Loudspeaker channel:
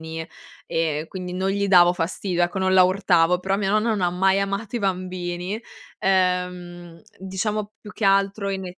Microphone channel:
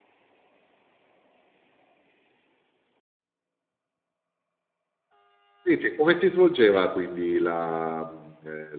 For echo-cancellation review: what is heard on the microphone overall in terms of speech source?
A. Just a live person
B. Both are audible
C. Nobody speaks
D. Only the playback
A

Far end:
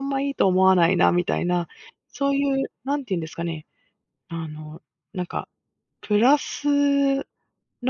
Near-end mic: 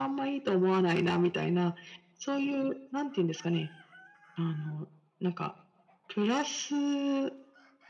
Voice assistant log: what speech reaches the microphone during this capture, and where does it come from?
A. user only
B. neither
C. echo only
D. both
C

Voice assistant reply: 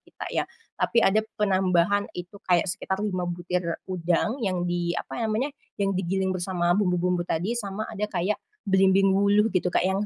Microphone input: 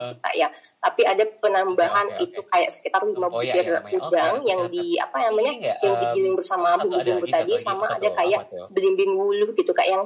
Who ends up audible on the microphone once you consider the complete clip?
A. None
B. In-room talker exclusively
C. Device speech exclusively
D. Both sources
D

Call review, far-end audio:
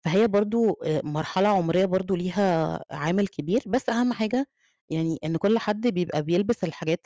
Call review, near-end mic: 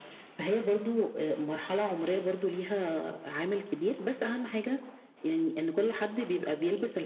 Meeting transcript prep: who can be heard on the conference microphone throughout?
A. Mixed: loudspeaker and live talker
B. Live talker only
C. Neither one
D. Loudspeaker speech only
D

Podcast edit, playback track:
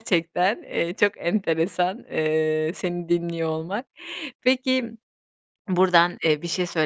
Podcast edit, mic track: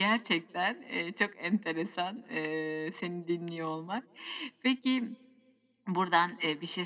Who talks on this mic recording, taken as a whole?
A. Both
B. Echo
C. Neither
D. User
B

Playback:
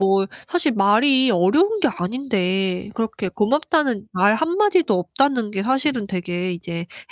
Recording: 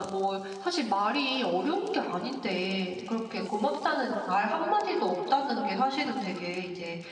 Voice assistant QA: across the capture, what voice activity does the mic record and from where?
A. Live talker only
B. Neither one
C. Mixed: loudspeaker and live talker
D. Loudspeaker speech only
D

